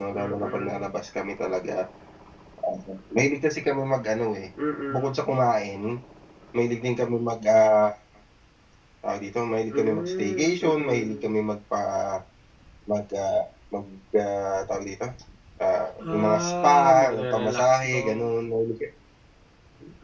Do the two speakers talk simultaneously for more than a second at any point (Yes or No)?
Yes